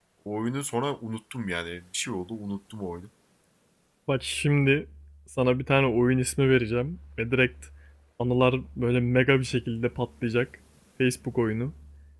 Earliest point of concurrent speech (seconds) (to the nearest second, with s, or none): none